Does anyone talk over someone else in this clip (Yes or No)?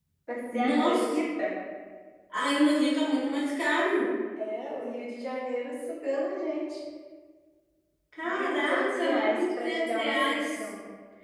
Yes